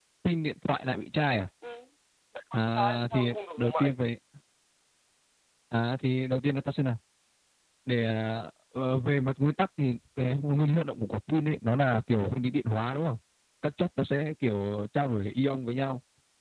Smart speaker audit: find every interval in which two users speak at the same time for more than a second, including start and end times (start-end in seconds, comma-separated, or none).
2.5-4.0